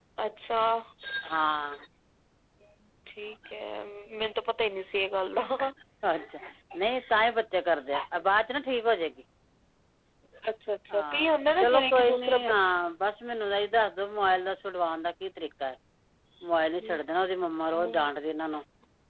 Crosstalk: present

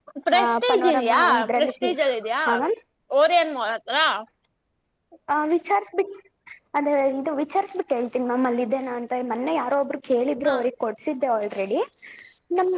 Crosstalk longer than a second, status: present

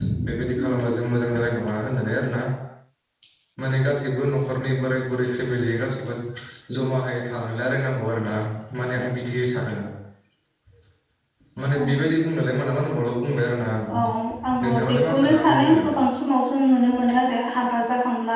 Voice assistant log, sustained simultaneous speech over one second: present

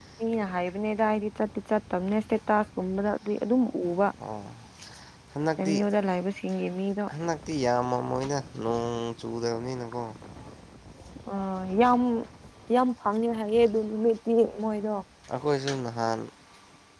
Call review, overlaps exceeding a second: none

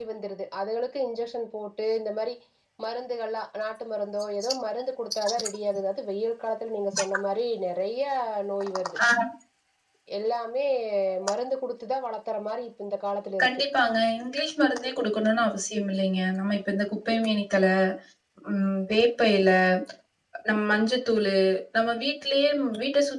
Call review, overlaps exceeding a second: none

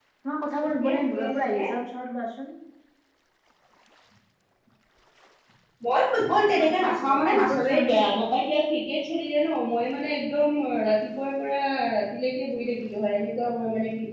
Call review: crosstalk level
present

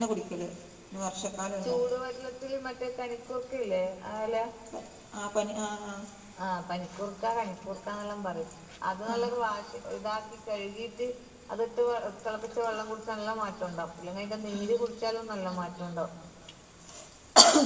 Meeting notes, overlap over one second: none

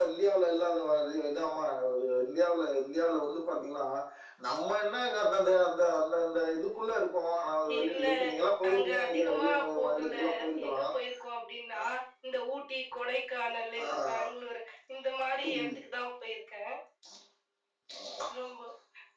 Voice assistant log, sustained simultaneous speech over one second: present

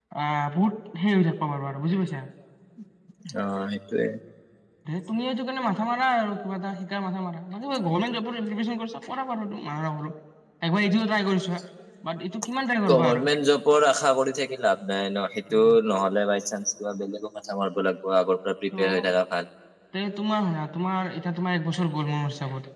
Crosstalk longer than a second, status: none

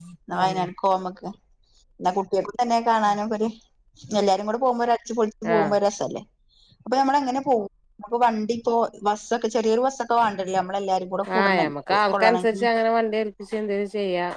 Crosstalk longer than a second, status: present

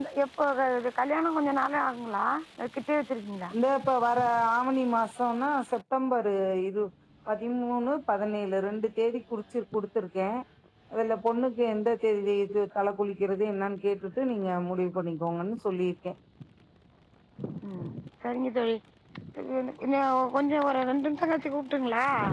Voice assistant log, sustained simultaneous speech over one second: none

